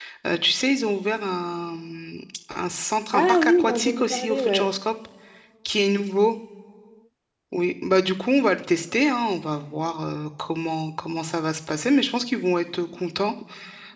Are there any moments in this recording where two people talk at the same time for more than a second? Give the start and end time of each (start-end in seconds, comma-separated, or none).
3.1-4.7